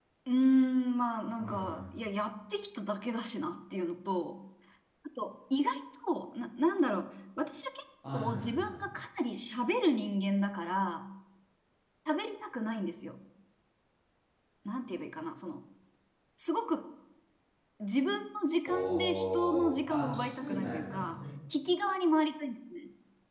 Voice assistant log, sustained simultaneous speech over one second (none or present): present